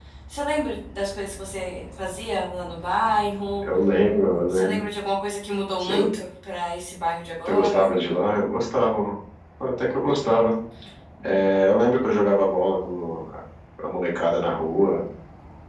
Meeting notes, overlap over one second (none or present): none